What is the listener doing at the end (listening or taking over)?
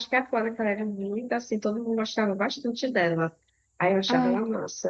listening